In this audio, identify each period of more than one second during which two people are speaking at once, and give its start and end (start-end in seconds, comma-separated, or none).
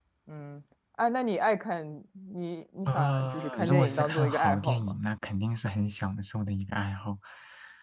2.8-5.0